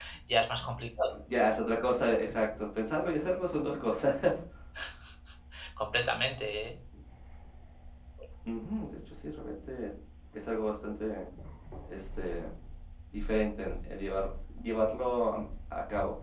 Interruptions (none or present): none